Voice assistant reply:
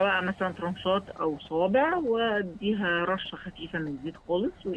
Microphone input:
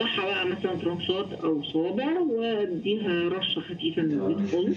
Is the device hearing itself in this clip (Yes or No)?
Yes